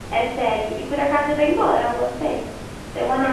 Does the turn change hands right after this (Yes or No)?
Yes